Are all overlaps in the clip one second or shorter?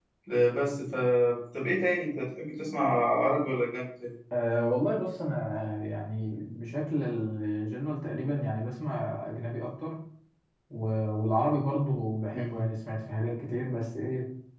Yes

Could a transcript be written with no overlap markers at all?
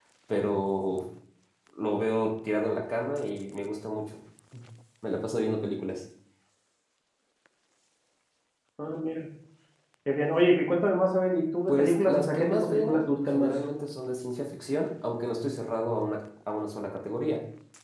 No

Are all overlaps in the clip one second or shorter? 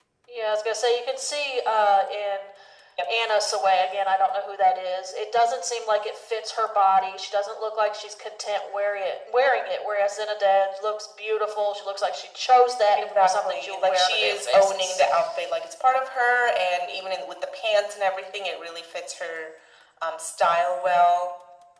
No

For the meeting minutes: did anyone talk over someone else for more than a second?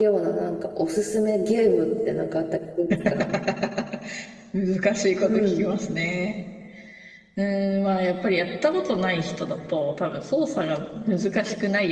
No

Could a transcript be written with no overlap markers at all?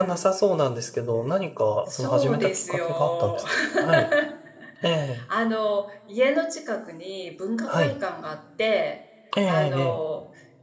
No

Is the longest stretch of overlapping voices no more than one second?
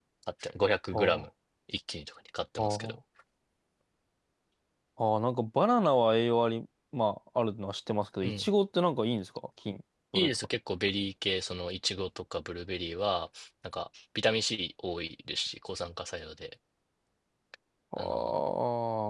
Yes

